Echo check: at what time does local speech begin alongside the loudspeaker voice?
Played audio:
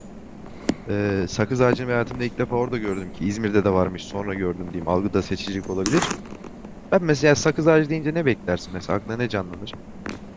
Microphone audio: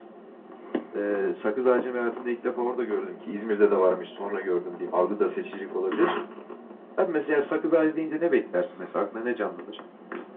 none

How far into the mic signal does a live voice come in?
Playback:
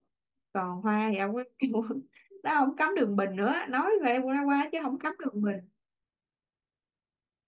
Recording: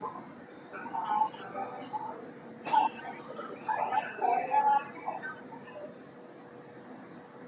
none

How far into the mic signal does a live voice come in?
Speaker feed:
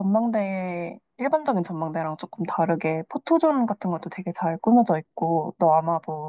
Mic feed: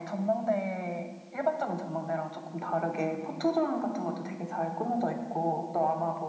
none

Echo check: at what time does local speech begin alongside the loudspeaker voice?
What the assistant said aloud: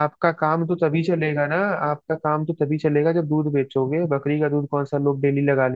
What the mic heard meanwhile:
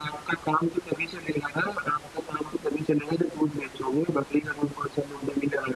none

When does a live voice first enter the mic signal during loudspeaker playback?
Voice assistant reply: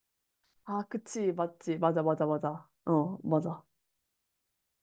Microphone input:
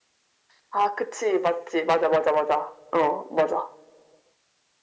none

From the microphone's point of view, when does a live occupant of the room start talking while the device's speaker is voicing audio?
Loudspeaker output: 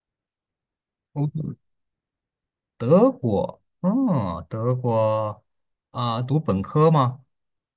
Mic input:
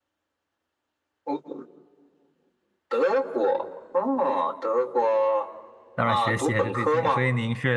6 s

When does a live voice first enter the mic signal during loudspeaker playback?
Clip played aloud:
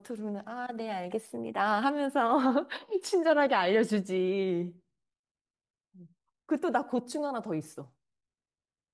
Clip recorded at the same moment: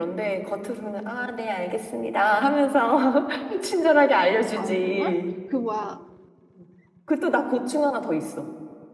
5 s

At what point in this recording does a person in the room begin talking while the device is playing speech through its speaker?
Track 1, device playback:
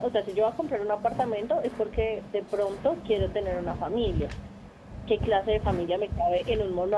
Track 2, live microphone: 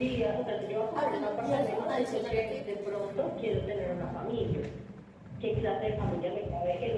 1 s

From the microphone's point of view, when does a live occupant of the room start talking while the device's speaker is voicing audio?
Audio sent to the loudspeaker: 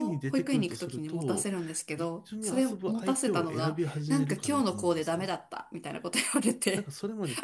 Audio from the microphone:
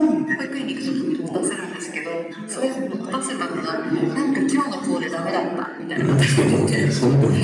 6 s

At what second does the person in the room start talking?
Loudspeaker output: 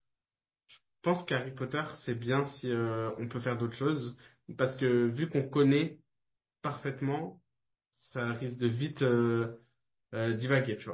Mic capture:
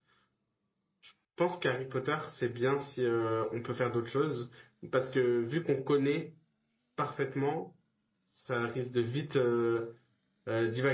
none

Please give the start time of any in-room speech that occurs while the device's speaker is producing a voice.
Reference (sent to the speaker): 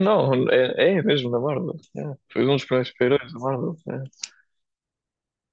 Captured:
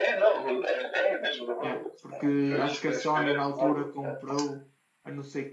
2 s

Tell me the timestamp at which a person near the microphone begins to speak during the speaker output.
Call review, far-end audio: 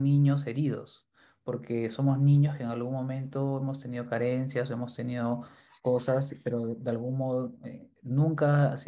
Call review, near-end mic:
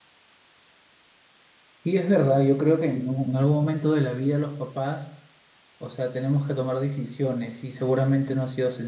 2 s

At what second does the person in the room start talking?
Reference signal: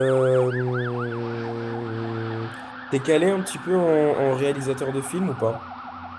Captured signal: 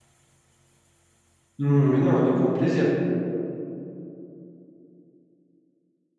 2 s

